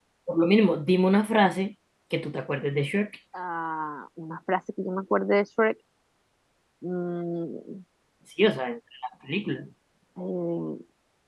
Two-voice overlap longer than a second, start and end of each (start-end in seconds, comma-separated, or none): none